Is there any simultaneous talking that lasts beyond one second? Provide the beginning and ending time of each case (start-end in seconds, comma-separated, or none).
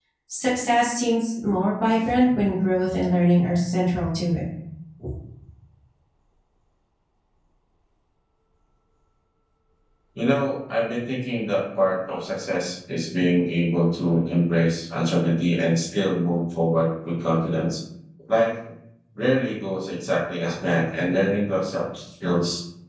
none